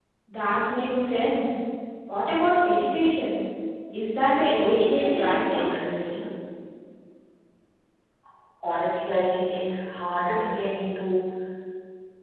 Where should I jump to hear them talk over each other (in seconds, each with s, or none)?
4.4 s